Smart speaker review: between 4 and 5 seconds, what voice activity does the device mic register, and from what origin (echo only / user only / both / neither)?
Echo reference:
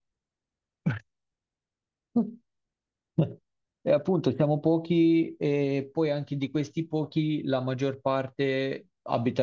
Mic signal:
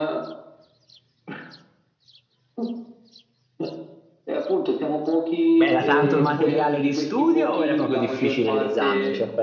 echo only